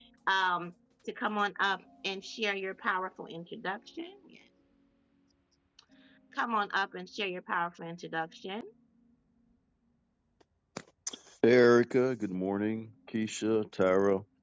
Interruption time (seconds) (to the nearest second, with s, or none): none